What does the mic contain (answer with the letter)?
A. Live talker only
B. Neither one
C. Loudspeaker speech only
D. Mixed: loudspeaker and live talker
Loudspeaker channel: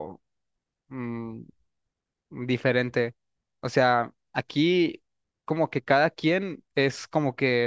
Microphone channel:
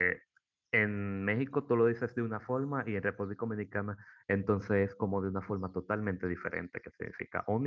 A